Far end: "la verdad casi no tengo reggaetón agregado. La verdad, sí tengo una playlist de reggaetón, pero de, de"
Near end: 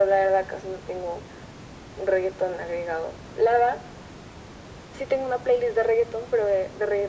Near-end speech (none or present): none